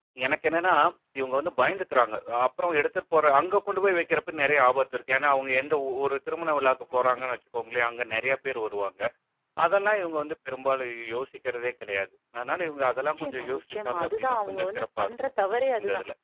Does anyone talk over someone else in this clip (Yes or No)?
Yes